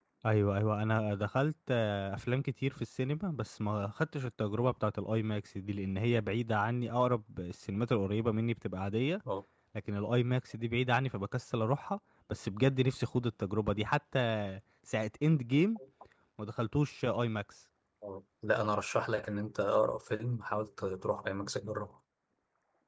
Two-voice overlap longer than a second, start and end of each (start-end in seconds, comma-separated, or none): none